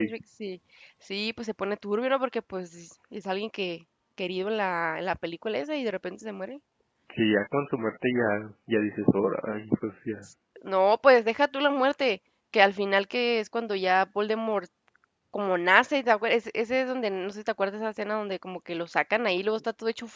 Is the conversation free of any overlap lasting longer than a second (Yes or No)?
Yes